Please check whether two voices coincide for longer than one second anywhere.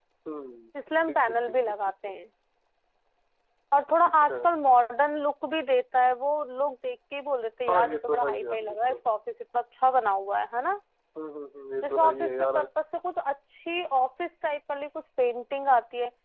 Yes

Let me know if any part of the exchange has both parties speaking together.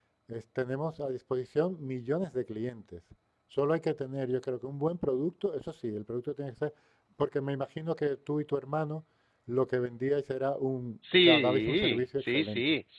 Yes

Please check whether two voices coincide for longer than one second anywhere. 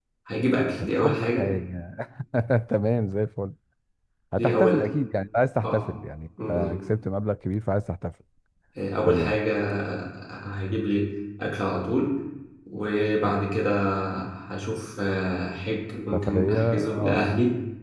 Yes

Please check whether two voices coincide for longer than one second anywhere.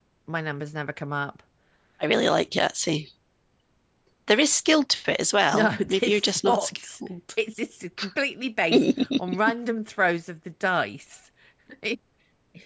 Yes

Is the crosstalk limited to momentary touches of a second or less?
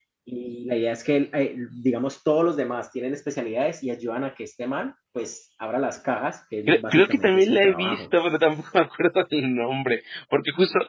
No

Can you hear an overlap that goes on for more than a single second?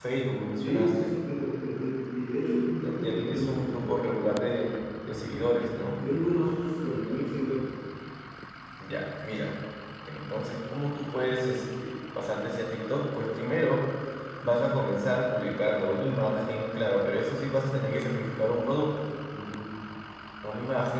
Yes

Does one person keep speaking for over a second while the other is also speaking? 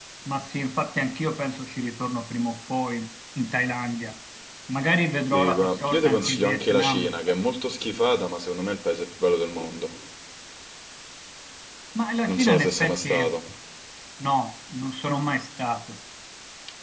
Yes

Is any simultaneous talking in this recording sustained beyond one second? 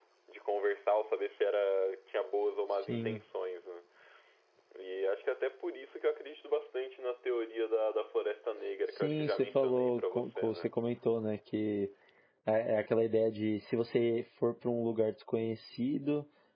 Yes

